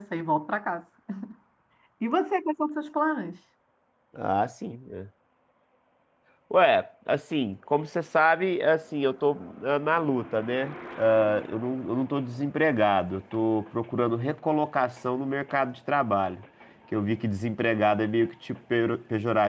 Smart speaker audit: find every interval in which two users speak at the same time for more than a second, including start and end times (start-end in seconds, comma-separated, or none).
none